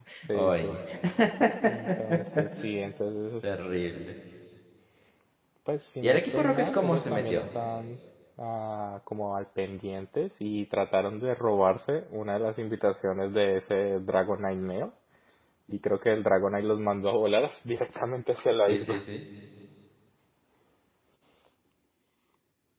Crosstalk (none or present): present